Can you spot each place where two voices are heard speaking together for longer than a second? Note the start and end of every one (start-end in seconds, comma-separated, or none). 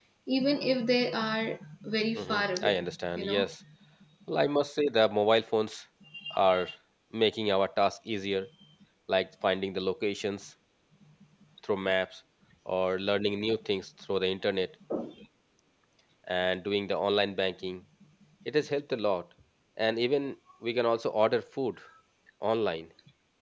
2.1-3.5